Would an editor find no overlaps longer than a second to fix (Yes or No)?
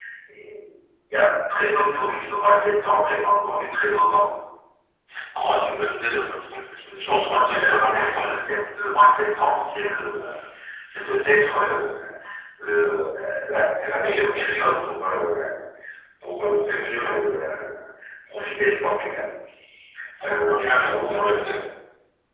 No